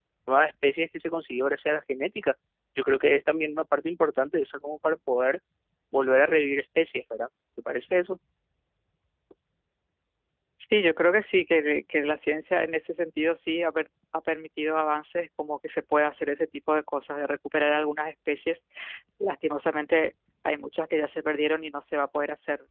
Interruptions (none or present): none